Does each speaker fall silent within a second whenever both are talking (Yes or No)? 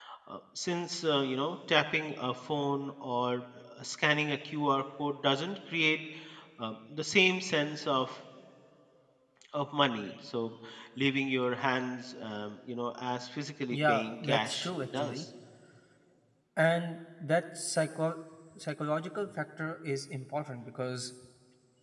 No